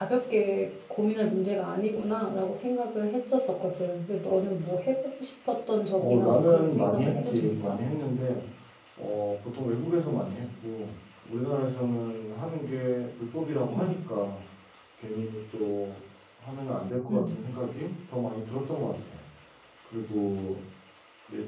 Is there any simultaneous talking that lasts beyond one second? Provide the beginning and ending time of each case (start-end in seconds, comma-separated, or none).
6.0-7.8